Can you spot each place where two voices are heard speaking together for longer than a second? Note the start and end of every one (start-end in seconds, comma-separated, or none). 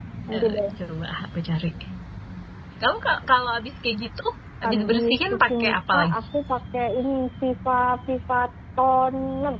4.6-6.2